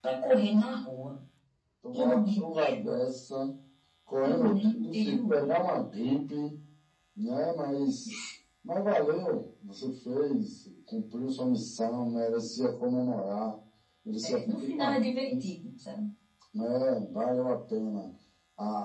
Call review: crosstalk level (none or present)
present